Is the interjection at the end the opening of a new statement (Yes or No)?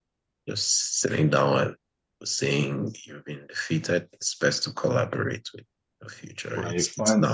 Yes